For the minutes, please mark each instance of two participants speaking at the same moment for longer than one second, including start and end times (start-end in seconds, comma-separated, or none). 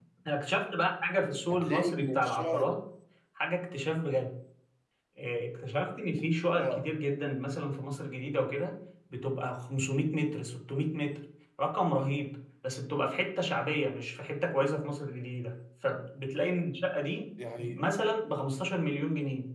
1.5-2.7